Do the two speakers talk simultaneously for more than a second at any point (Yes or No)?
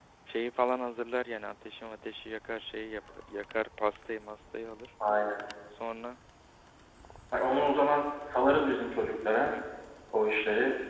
No